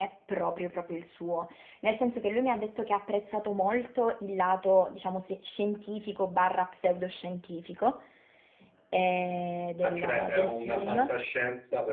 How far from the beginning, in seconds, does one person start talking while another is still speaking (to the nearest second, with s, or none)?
10 s